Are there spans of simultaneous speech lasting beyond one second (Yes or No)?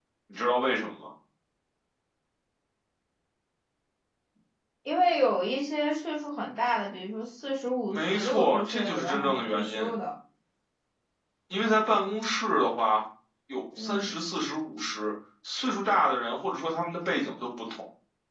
Yes